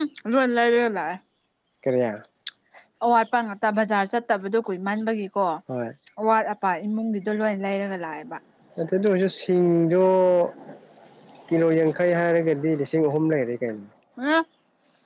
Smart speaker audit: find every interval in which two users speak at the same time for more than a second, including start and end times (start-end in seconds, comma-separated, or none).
none